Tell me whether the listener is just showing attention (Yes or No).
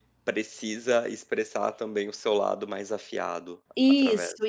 No